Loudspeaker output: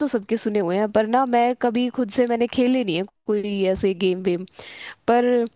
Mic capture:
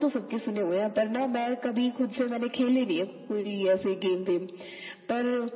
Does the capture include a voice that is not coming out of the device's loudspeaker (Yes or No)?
No